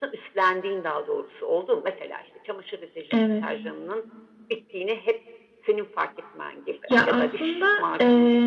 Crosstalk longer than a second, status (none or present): present